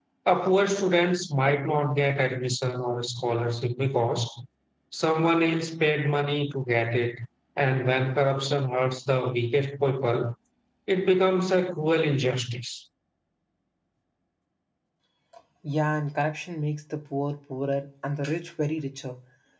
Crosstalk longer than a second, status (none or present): none